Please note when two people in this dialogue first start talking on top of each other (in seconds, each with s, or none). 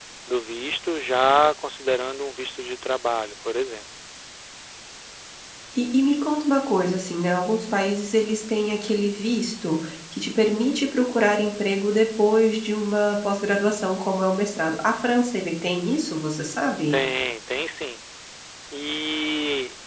none